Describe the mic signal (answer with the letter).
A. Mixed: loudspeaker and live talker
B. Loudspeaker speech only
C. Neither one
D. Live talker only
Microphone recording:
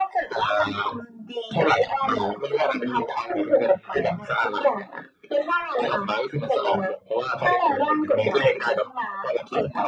B